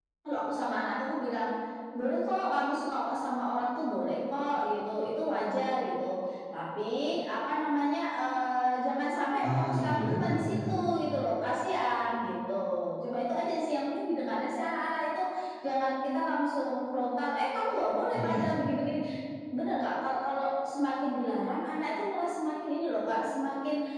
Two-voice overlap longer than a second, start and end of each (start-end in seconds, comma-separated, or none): 9.4-10.8